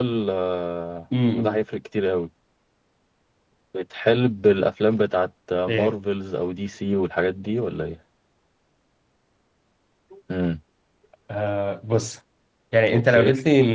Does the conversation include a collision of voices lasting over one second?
No

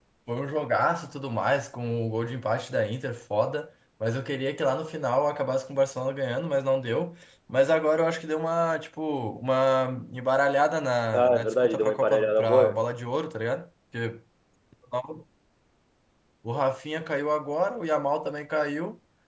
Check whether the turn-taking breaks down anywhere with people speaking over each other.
Yes, from 11.1 s

